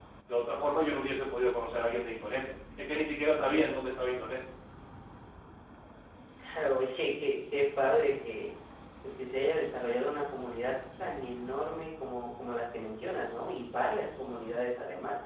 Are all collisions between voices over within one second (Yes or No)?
Yes